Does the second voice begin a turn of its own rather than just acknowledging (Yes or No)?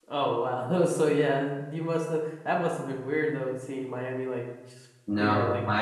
Yes